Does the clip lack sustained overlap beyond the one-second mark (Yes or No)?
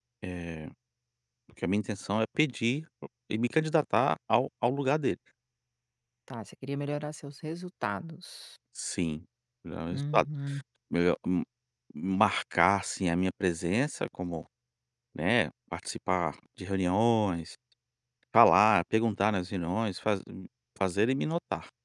Yes